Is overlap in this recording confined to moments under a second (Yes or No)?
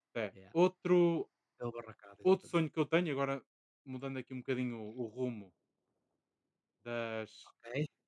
Yes